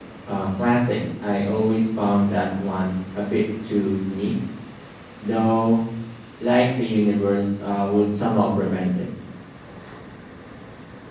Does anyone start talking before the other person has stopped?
No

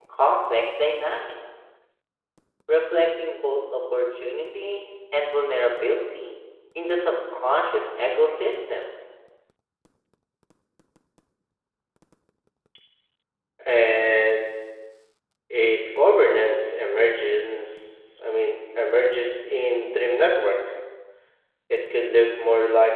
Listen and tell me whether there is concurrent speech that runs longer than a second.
No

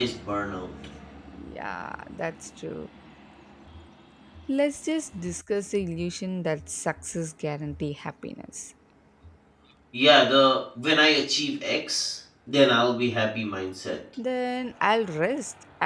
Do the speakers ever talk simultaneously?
No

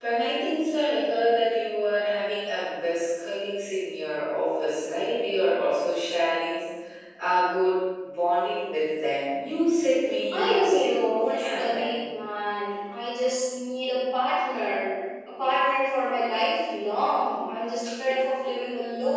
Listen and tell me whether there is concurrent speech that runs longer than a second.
Yes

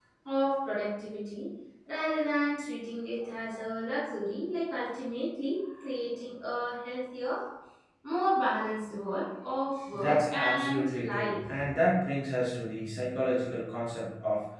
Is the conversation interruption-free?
No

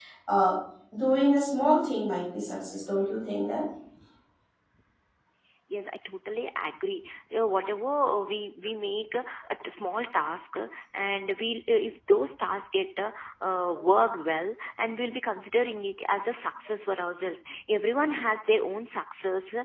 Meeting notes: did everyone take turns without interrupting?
Yes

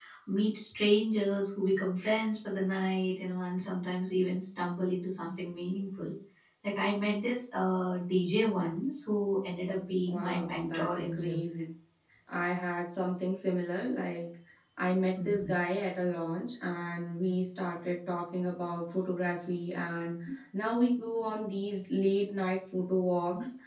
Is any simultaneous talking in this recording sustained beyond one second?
Yes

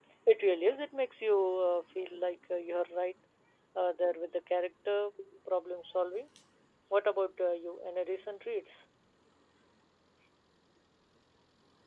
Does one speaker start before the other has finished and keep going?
No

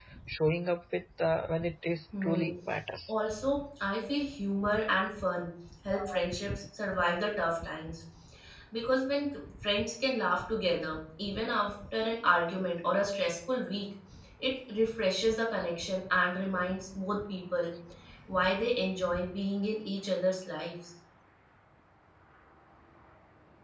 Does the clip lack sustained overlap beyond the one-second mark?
Yes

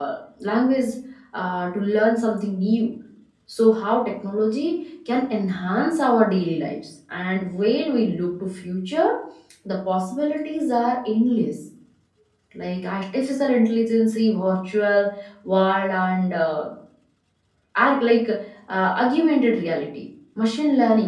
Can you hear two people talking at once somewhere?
No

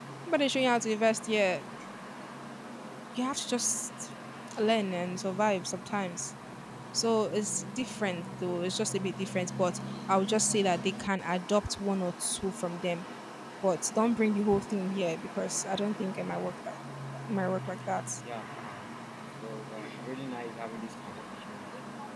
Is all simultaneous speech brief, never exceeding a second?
Yes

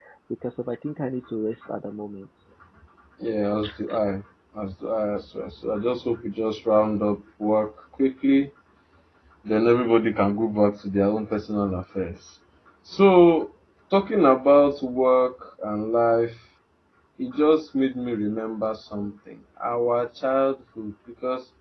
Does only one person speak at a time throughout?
Yes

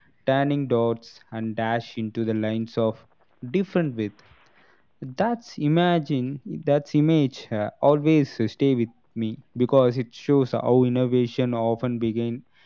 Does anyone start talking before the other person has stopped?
No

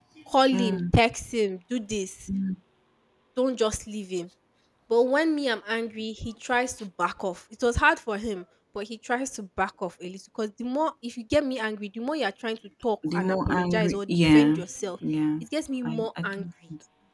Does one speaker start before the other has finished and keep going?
Yes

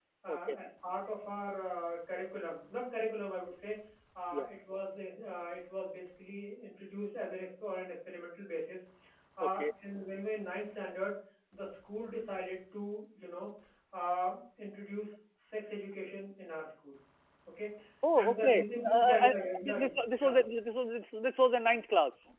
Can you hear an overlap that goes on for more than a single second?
Yes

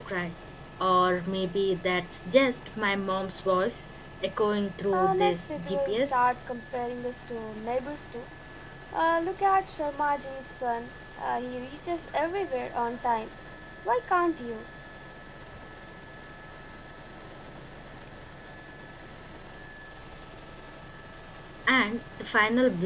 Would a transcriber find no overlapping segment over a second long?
No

